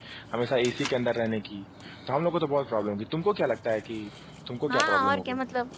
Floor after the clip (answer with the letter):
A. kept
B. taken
B